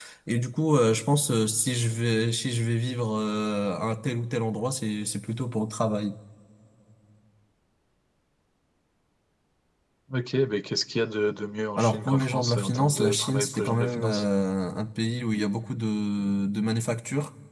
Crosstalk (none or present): present